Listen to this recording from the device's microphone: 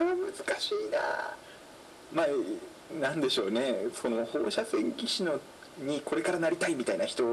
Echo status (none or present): present